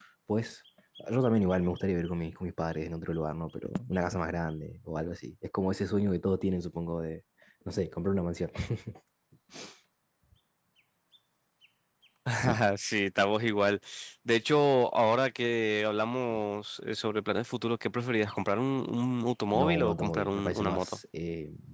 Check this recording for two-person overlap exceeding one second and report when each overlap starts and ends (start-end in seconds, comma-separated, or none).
19.5-21.0